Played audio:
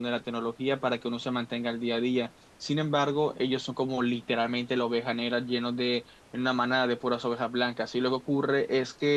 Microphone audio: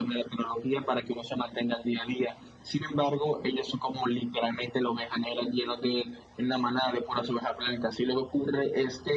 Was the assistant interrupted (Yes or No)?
No